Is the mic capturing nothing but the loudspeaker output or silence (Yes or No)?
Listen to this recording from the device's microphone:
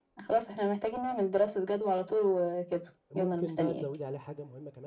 No